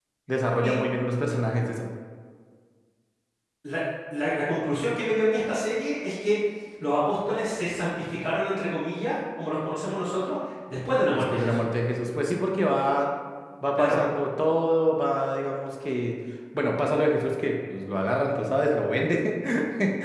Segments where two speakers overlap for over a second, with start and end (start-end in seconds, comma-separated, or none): none